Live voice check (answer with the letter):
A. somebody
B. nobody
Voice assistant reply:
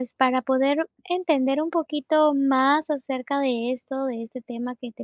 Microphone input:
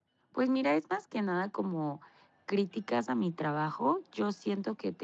A